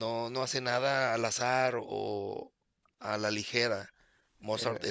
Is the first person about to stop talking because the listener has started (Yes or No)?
No